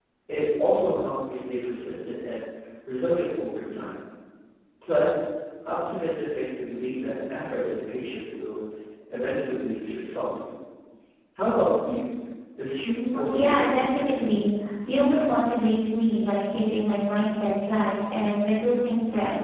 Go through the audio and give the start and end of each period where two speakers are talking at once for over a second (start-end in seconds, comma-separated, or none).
13.1-14.4